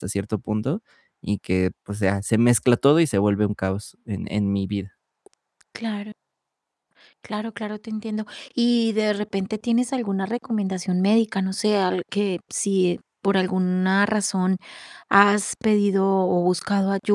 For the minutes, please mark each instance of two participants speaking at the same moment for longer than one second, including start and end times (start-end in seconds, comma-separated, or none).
none